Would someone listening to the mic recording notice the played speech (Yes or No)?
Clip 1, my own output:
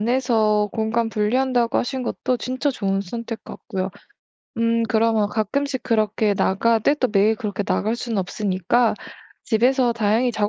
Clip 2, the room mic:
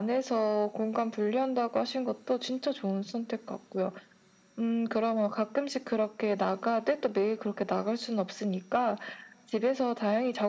Yes